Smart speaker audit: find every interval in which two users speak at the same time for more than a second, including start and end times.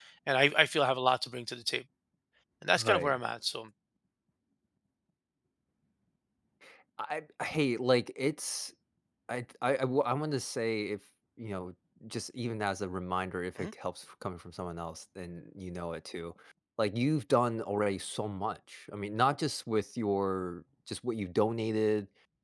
none

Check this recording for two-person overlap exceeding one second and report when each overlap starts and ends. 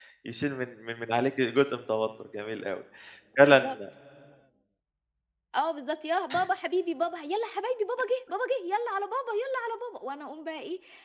none

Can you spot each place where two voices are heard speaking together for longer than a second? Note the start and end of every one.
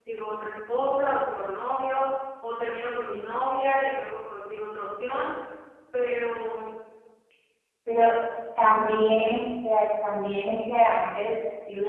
none

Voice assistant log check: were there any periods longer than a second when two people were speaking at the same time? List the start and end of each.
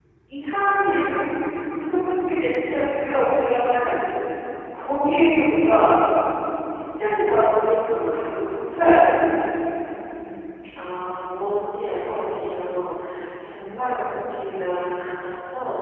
none

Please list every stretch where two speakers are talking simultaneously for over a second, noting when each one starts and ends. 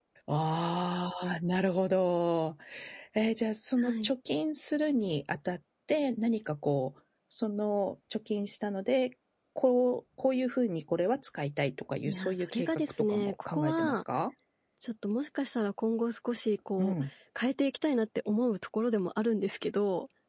12.1-14.0

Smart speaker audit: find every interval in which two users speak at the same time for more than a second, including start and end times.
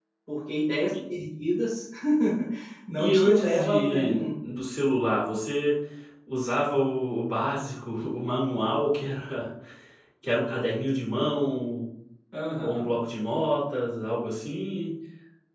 3.0-4.2

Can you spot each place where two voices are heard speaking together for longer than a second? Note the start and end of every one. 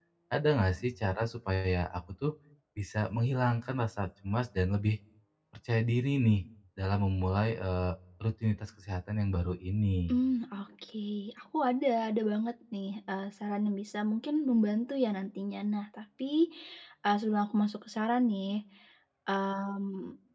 none

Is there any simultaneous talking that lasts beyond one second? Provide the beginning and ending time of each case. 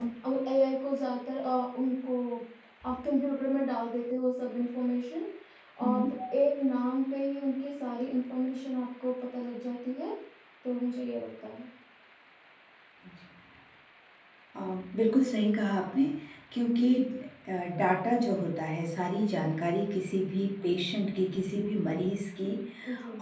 none

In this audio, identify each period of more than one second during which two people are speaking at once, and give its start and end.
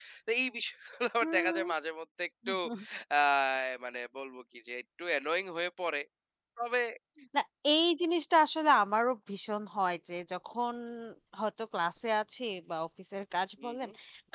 none

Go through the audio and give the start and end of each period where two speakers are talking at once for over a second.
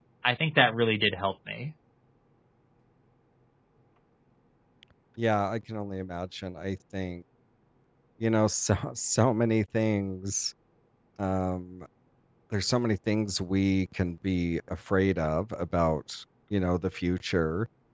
none

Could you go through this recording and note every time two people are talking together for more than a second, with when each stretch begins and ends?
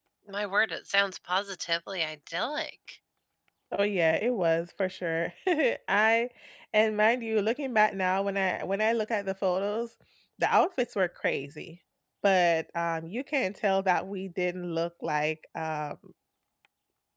none

